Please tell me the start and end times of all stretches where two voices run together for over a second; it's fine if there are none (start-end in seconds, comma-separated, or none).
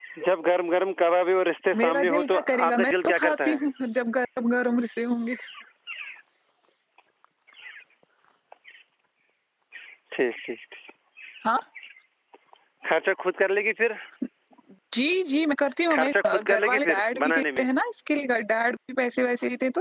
1.8-3.6, 15.9-17.6